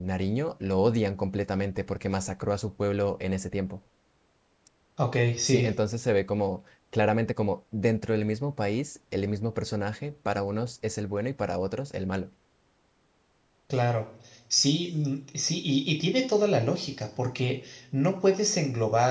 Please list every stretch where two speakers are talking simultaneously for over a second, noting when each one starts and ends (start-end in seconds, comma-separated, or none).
none